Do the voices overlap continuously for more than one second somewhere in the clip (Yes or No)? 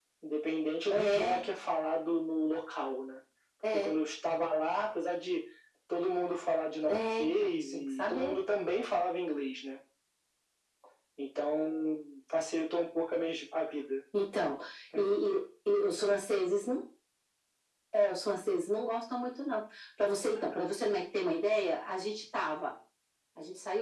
Yes